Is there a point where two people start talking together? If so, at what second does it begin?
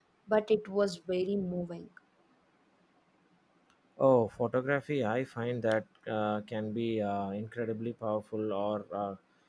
none

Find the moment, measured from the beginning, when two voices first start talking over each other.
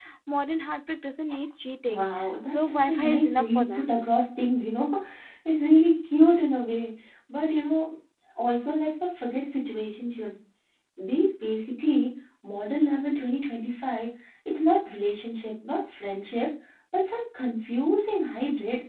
1.9 s

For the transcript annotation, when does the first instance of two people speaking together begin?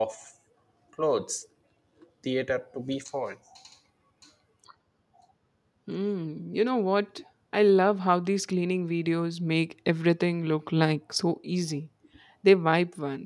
none

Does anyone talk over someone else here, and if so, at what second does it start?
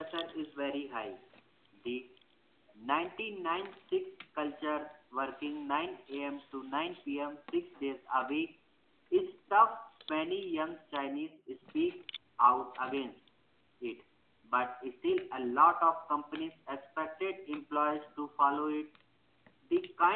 none

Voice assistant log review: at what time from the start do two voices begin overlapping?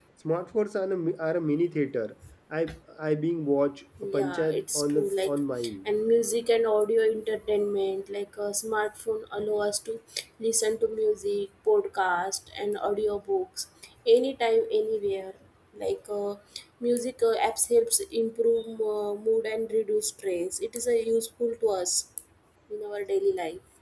4.1 s

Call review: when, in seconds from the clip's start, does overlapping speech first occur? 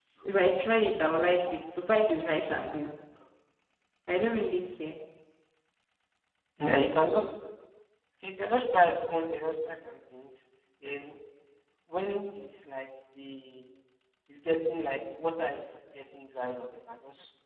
none

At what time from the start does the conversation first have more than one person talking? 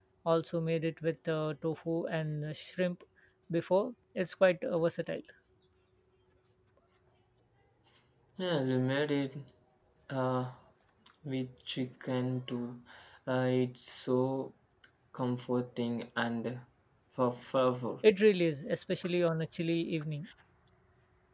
none

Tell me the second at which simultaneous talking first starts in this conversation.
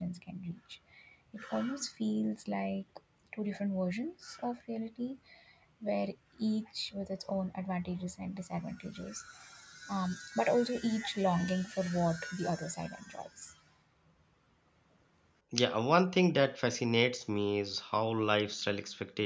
none

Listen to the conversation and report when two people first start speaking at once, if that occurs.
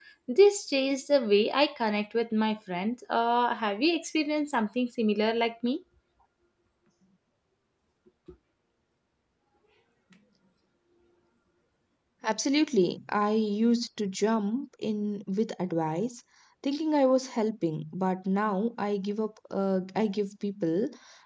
none

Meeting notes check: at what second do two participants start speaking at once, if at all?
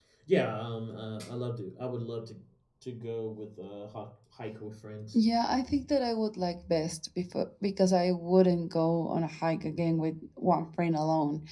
none

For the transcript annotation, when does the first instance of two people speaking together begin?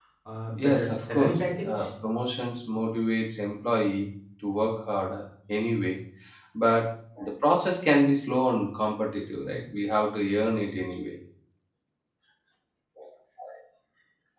0.6 s

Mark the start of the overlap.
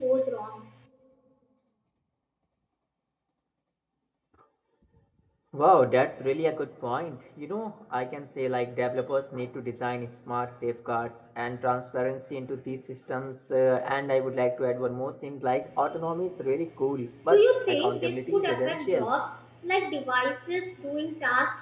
17.3 s

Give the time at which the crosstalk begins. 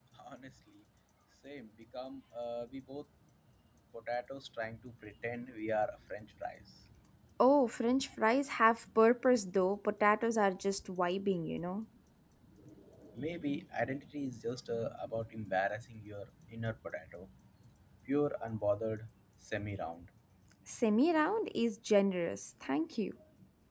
none

